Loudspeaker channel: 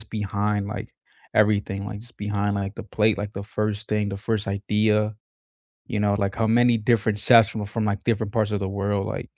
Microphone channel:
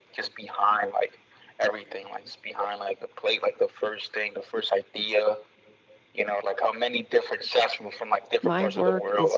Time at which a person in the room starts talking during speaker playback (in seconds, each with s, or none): 8.4 s